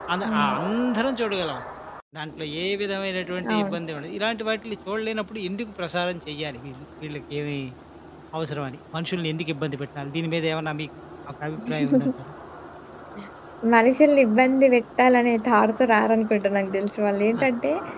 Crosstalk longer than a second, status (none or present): none